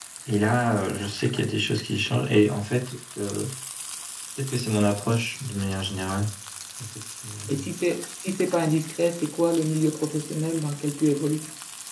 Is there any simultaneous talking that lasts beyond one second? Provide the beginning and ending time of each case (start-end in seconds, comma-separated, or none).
none